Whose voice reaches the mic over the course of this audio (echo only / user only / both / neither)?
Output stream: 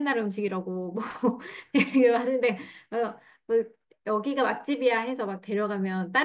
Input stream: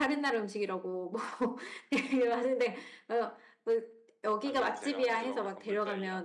both